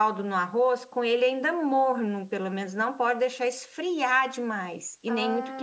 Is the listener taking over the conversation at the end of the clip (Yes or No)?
Yes